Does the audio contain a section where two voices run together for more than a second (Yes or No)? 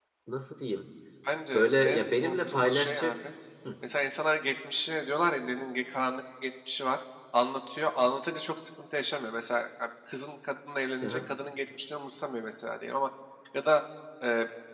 Yes